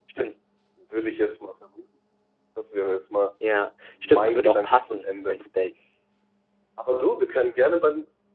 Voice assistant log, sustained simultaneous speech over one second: present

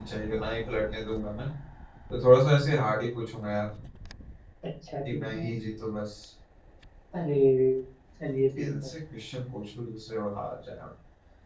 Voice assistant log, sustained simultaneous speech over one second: none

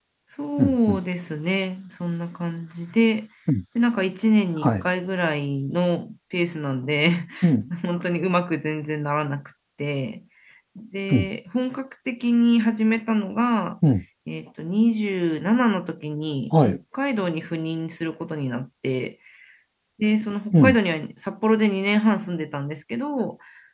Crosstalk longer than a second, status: none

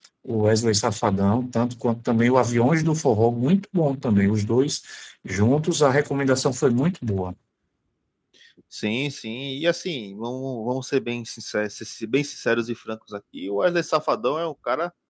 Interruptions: none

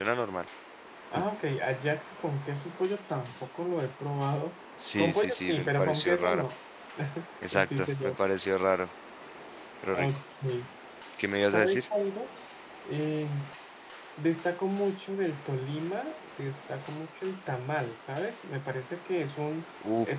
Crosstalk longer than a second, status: present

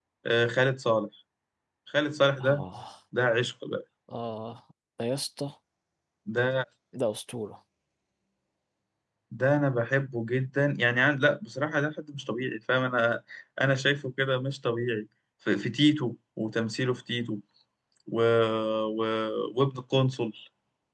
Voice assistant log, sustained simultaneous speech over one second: none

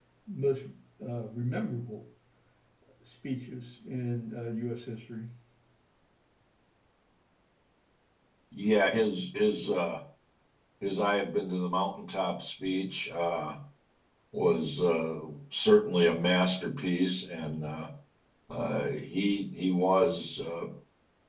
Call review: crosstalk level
none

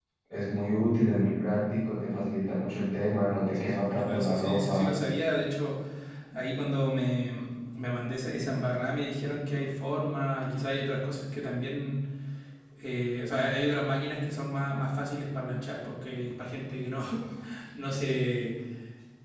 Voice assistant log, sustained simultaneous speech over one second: present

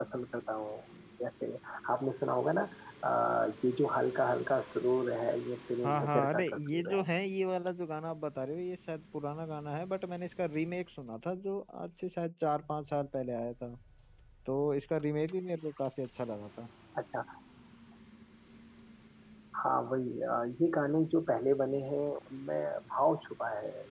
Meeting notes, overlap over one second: present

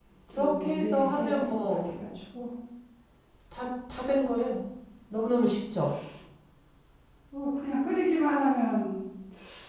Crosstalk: present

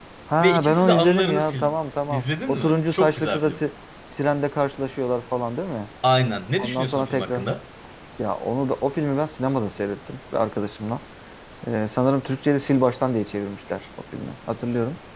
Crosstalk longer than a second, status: present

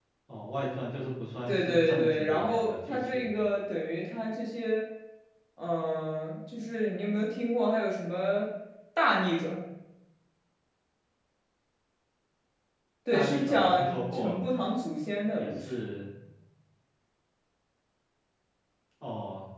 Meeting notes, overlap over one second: present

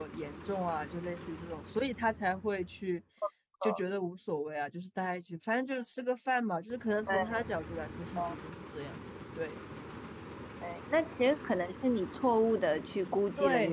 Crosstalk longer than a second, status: none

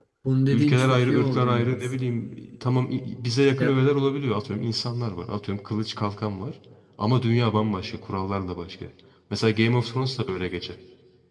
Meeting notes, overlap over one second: present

